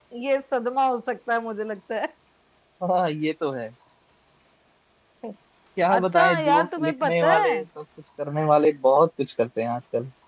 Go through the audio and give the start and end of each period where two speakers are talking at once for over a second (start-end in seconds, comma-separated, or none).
6.0-7.5